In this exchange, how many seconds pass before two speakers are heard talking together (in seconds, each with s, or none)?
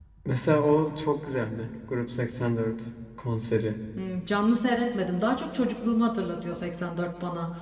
none